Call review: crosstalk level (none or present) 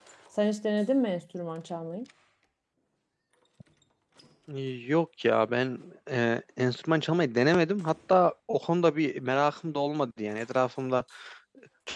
none